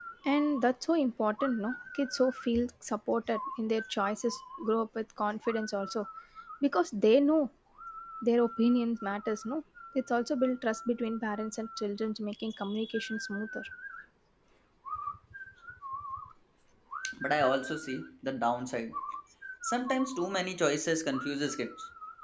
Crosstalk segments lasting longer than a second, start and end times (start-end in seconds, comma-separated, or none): none